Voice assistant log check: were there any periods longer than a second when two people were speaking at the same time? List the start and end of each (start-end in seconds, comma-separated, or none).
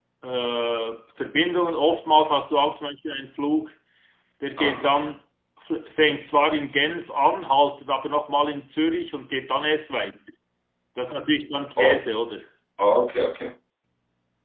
none